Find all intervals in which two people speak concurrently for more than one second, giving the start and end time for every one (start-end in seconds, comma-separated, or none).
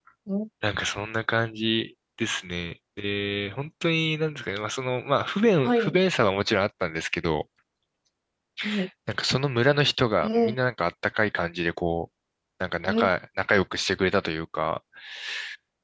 none